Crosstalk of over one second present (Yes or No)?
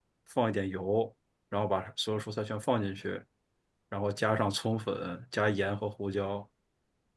No